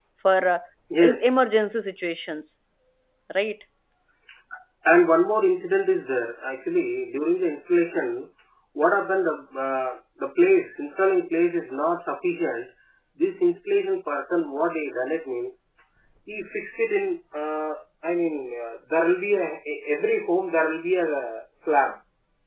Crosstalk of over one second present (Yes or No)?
No